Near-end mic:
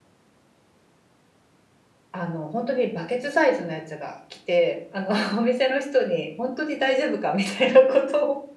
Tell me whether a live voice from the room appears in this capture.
Yes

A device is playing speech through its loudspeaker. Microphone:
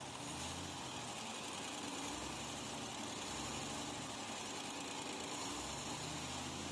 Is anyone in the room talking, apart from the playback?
No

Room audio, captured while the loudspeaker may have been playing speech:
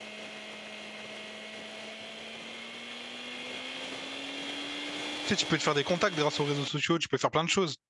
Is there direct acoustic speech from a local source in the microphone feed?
Yes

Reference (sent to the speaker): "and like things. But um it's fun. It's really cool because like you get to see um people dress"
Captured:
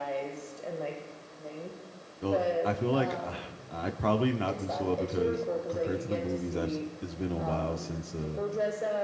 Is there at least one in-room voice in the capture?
Yes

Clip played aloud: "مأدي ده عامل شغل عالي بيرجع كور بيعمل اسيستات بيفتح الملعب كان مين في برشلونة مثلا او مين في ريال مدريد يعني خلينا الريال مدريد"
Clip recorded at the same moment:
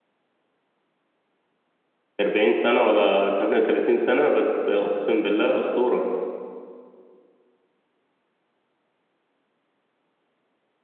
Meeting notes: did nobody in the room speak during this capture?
No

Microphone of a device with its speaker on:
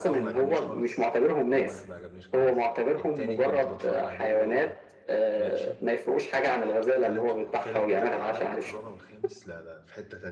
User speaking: Yes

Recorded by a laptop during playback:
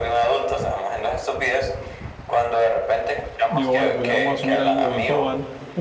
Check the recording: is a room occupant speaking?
Yes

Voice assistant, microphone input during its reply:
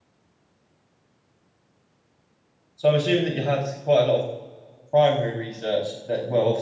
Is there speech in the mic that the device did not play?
Yes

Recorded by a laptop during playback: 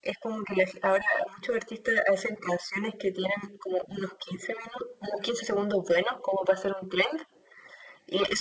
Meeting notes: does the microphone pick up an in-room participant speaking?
No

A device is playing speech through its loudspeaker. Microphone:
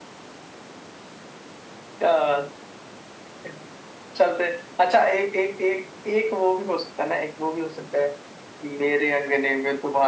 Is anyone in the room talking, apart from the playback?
No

